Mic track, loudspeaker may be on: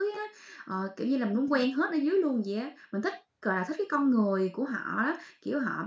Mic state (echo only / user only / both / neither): user only